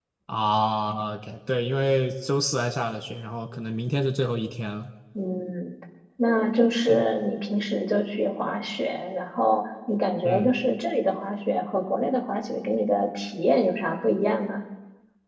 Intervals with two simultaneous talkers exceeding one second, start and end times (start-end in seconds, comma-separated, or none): none